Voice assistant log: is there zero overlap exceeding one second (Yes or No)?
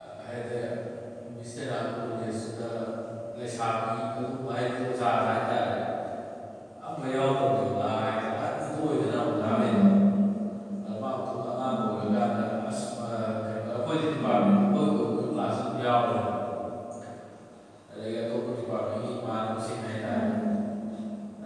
Yes